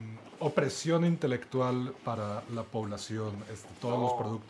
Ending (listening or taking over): listening